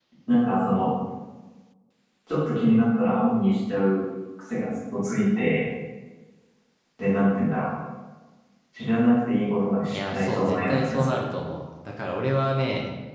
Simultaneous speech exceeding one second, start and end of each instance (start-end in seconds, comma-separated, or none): 9.9-11.2